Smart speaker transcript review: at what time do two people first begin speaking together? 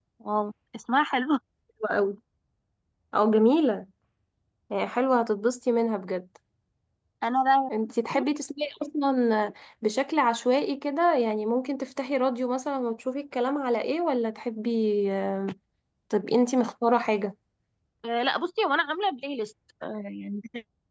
none

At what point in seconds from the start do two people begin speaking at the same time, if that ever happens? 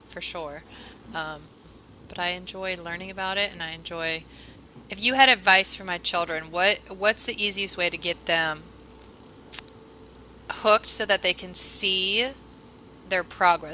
none

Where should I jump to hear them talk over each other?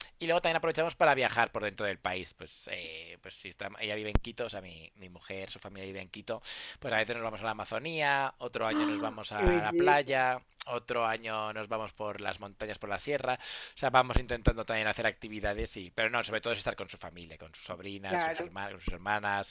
8.7 s

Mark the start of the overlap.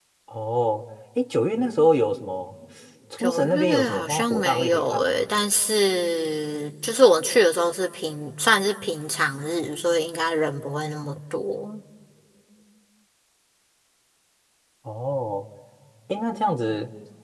3.2 s

